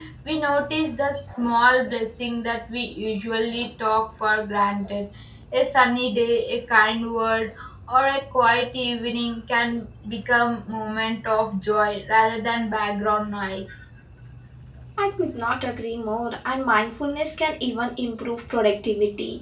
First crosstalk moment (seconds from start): none

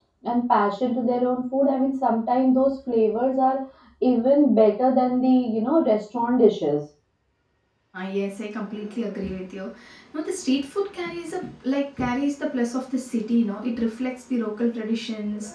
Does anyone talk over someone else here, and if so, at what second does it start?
none

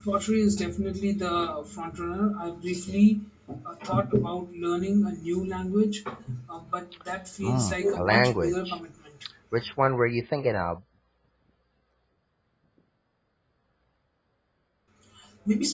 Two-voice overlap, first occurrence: 7 s

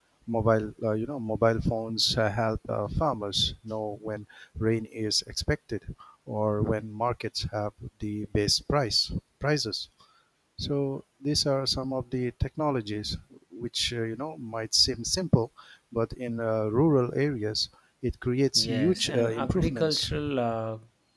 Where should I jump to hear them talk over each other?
19 s

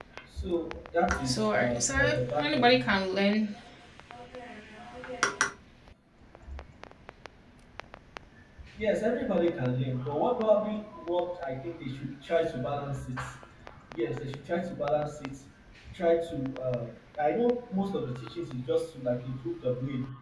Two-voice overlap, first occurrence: 1 s

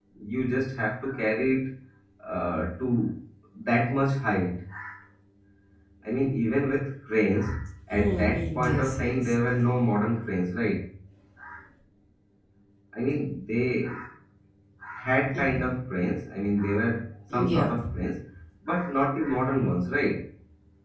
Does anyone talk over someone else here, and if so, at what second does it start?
8 s

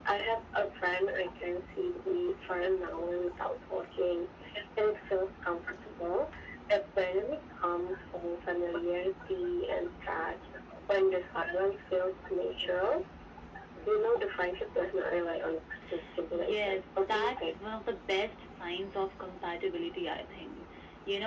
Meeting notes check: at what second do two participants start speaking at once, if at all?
16 s

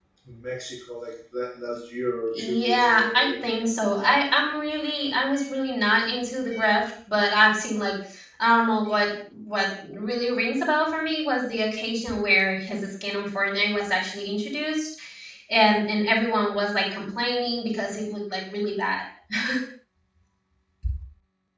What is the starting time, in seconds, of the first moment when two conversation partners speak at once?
2 s

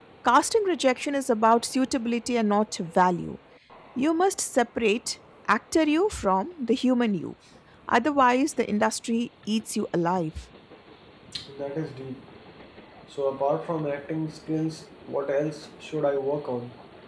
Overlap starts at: none

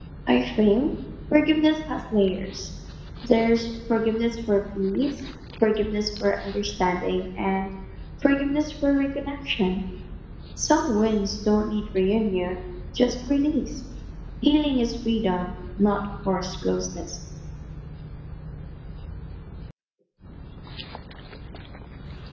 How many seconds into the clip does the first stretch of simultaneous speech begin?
none

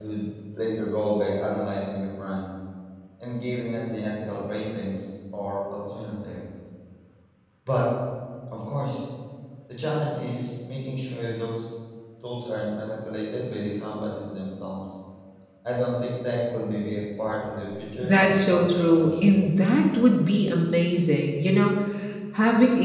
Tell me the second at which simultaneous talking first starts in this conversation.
18 s

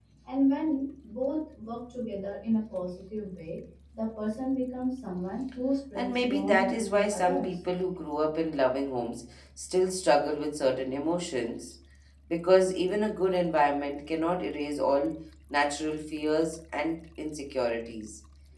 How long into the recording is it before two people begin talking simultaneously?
6 s

